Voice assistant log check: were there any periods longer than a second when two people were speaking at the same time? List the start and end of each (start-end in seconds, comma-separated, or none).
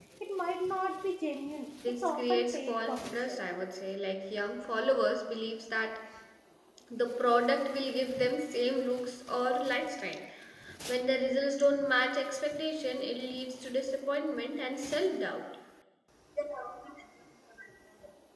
2.0-3.4